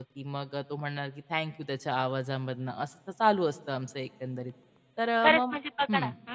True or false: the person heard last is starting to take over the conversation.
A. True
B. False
A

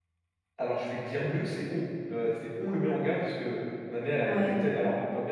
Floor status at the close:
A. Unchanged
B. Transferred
A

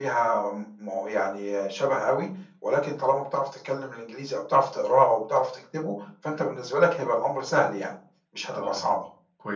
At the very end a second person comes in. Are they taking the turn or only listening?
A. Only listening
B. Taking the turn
B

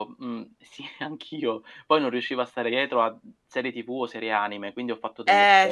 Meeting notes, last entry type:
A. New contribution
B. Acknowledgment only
A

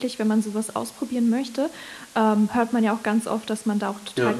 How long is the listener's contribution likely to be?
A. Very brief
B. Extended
A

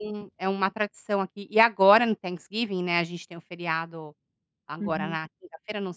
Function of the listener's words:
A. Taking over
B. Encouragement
B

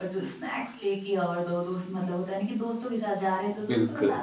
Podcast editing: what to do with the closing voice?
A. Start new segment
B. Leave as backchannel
B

